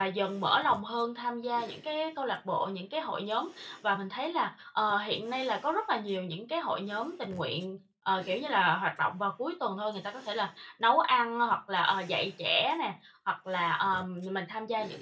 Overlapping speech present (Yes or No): No